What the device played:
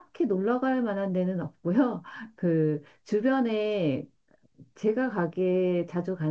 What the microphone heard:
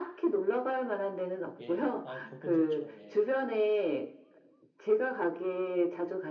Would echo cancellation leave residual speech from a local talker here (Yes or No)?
Yes